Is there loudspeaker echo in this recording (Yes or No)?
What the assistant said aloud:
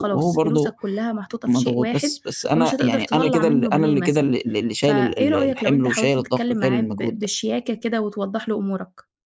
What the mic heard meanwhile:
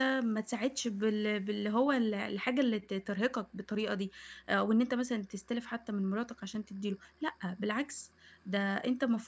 No